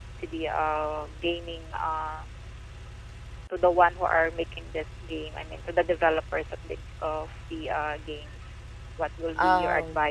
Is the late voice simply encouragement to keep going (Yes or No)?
Yes